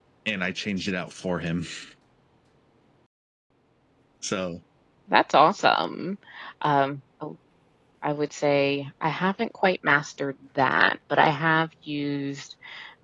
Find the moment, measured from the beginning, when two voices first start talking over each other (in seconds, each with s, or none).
none